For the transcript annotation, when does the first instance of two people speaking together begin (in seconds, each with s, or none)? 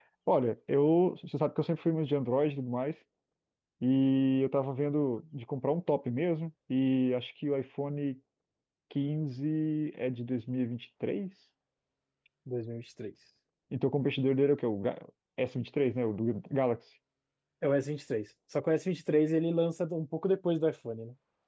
none